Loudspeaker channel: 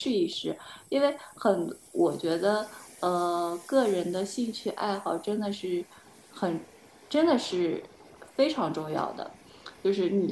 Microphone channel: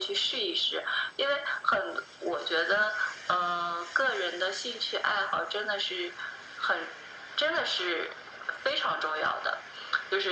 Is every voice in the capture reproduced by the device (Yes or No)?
Yes